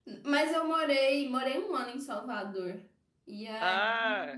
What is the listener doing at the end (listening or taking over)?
listening